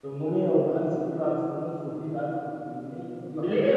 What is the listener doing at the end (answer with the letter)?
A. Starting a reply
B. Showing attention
A